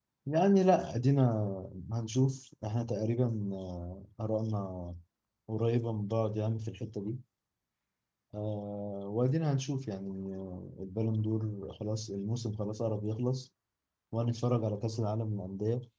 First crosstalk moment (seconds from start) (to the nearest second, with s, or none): none